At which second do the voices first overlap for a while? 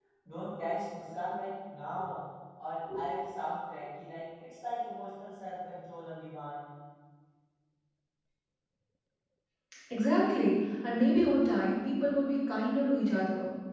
none

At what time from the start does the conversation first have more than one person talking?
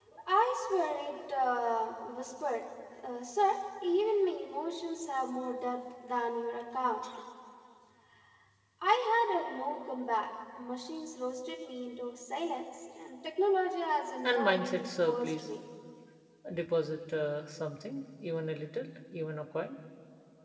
14.2 s

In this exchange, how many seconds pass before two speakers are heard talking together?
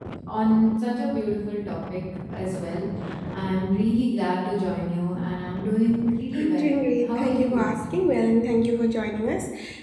6.3 s

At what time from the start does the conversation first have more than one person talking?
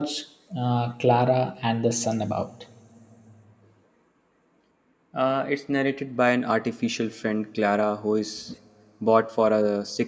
none

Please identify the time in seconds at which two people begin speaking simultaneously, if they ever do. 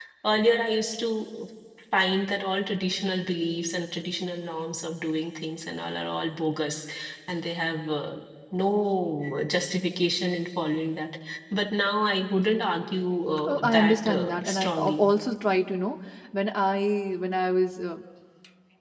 13.5 s

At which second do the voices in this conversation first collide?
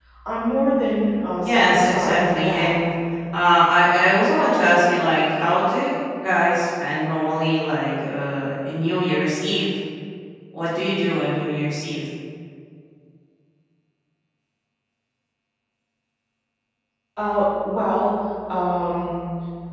1.4 s

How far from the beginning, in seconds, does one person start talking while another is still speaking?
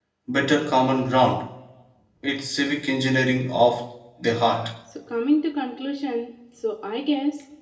none

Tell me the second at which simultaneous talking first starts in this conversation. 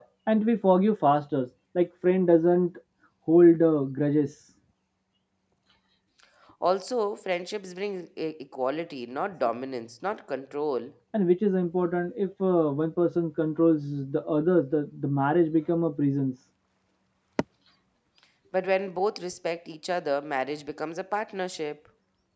none

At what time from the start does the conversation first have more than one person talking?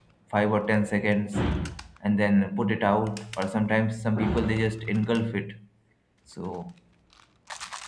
none

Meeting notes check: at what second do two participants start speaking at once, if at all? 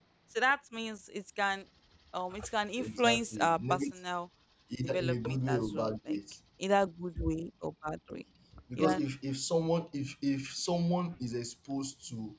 2.8 s

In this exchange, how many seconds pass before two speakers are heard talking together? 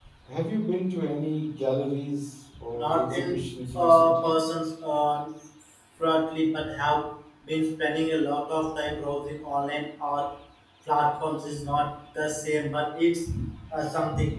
2.7 s

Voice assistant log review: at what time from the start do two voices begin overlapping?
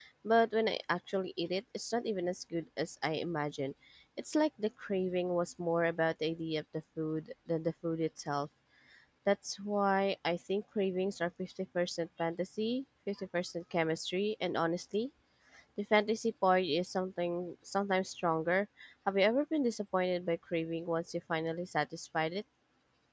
none

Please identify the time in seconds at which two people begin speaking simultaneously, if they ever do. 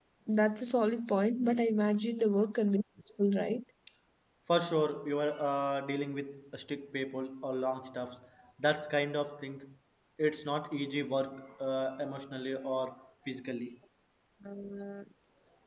none

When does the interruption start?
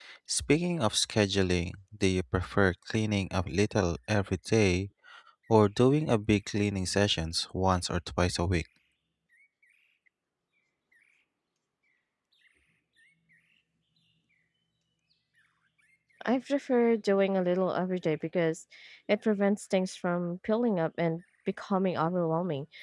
none

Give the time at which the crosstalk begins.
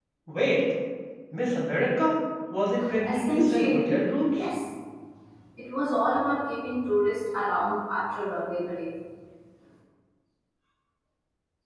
3.0 s

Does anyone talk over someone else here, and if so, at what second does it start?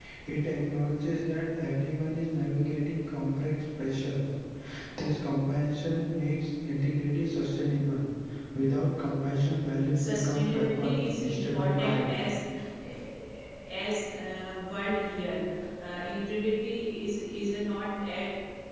10.0 s

